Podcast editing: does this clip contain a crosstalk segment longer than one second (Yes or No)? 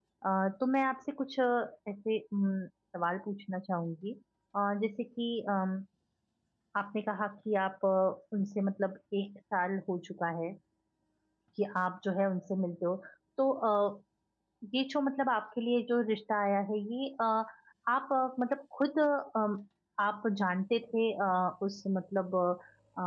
No